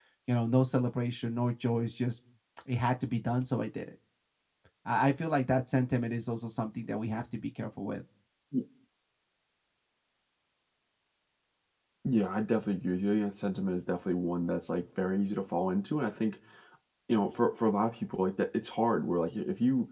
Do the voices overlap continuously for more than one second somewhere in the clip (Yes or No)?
No